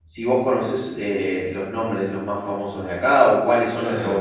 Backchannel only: No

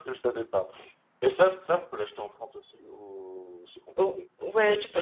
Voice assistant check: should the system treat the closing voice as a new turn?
Yes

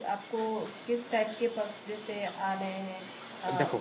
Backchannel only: Yes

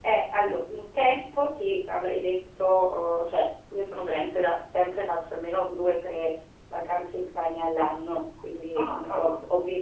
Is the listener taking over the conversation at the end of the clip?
No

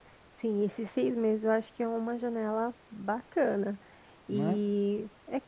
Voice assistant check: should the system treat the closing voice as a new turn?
No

